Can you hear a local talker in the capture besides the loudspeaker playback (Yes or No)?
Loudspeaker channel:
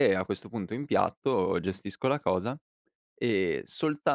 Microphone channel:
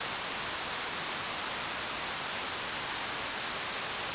No